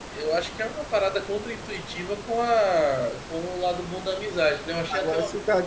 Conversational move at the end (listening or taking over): taking over